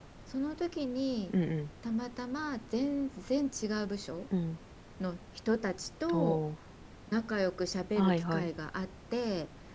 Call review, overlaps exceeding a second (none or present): none